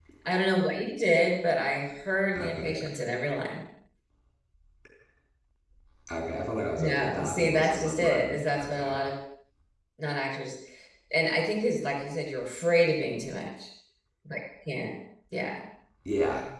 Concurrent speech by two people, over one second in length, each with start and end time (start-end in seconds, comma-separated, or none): 6.8-8.9